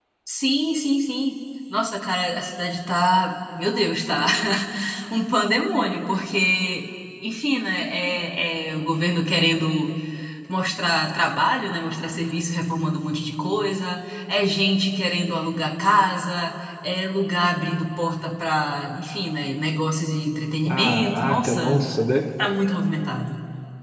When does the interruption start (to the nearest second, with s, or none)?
21 s